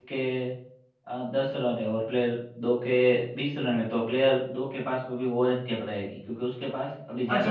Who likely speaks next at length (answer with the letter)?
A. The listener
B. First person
A